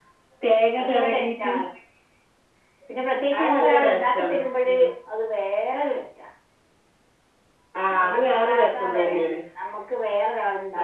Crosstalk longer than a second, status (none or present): present